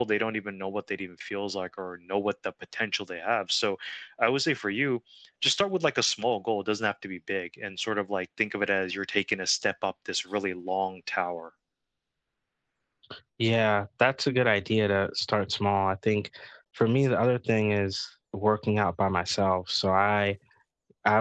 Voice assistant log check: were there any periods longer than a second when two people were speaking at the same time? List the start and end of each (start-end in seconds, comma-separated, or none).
none